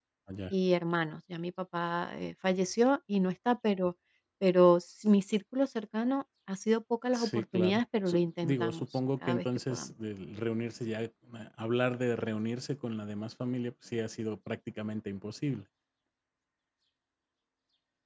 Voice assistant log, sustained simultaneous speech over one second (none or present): present